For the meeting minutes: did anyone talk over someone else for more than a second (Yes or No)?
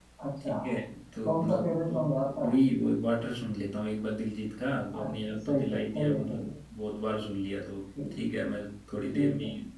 Yes